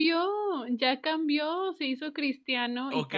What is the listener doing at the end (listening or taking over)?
taking over